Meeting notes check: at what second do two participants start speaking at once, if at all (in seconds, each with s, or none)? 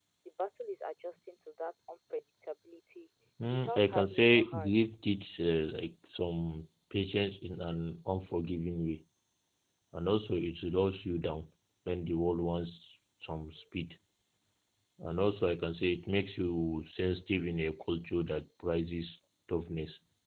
3.5 s